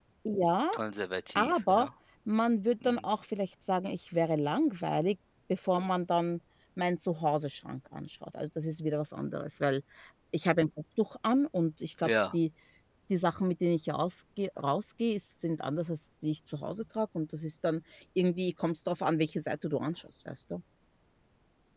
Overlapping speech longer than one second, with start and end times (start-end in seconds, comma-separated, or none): none